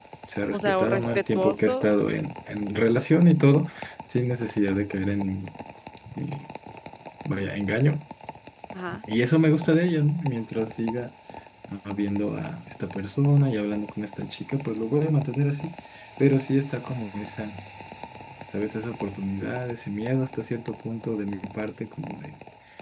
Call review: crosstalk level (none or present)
present